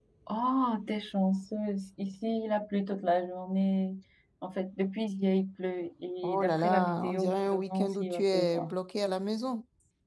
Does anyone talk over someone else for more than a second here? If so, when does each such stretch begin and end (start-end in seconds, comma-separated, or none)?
6.2-8.7